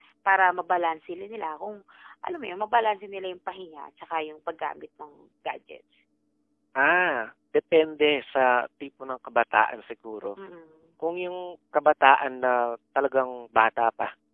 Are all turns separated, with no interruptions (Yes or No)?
Yes